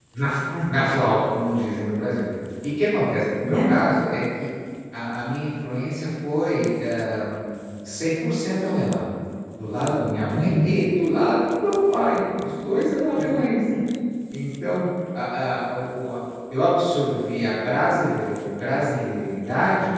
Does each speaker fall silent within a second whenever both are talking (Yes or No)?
Yes